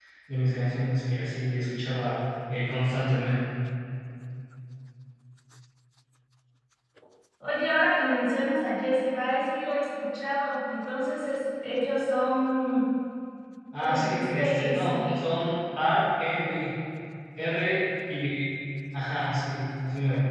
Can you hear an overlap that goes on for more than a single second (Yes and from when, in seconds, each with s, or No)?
Yes, from 13.8 s